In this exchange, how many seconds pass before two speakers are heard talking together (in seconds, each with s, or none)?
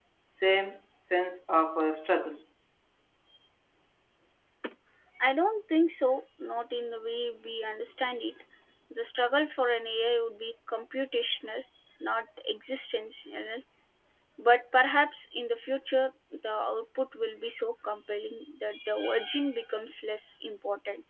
none